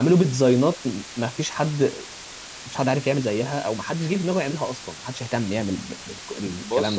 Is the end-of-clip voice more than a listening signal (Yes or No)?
Yes